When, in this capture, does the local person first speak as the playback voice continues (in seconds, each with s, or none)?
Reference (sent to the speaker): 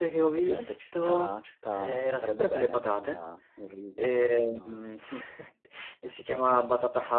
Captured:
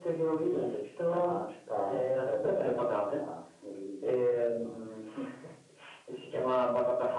none